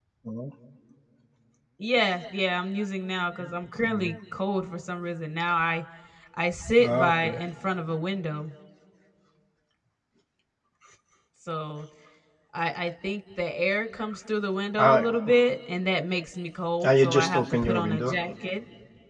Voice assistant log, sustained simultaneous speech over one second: present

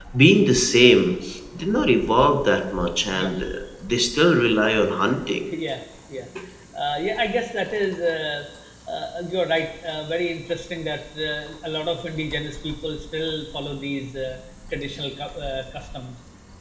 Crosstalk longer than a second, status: none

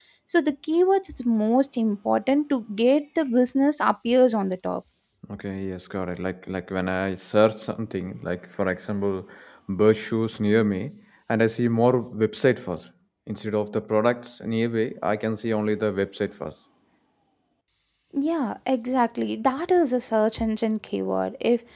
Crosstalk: none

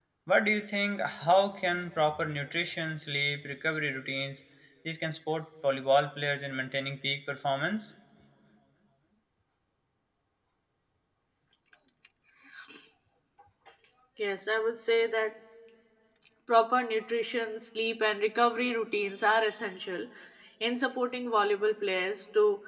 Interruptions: none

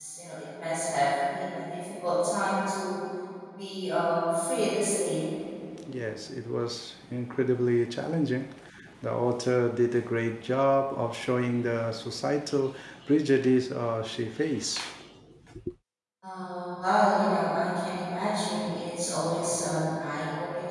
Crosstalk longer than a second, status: none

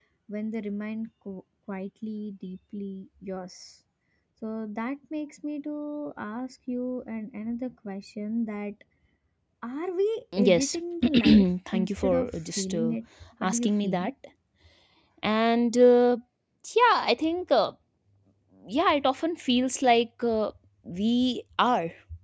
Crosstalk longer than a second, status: present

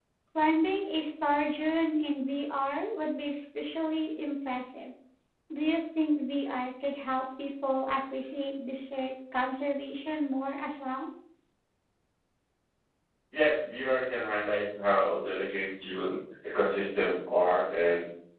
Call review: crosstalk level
none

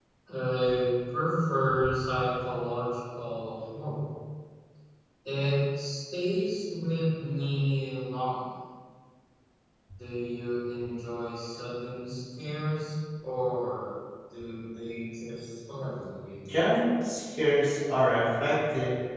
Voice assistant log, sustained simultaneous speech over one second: none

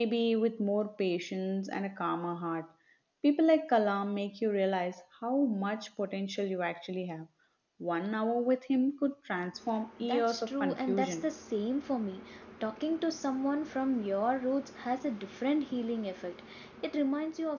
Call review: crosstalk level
present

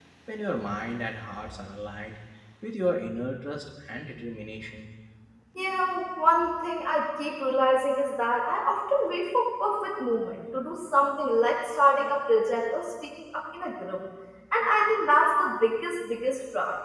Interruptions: none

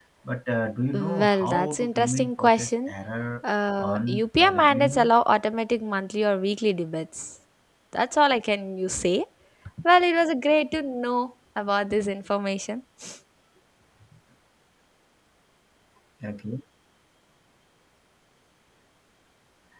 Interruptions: present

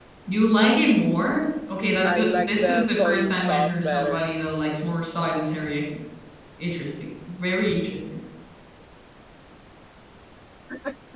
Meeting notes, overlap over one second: present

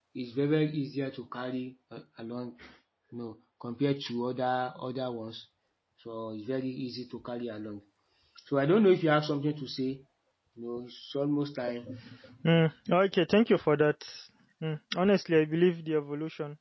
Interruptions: none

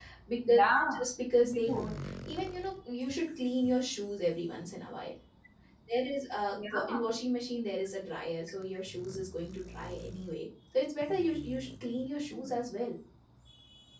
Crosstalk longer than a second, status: none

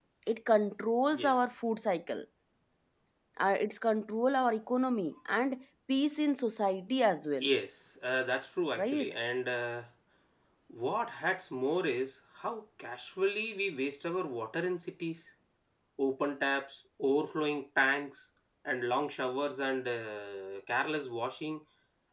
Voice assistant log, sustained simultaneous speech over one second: none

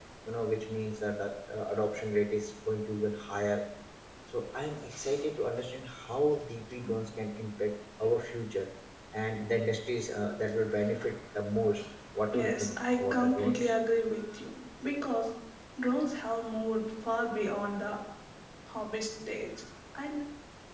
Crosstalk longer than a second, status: present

